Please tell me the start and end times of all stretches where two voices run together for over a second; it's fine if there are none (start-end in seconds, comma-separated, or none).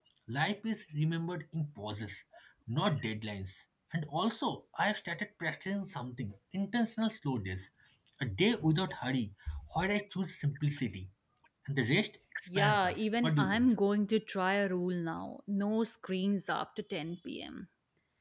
12.5-13.7